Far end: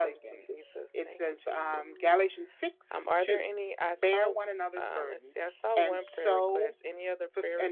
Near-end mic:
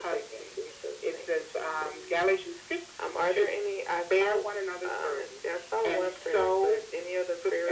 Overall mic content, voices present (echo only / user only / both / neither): echo only